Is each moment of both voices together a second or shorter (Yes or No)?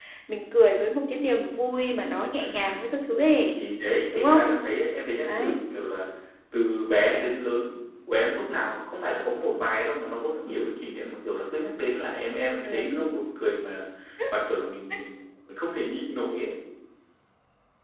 Yes